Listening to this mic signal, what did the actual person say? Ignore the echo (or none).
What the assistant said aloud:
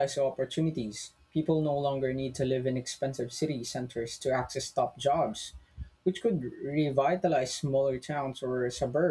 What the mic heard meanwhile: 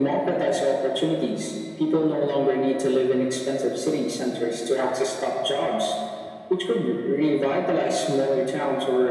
none